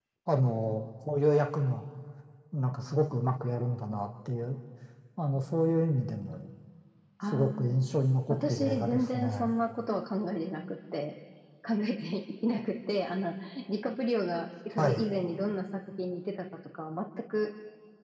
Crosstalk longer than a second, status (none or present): present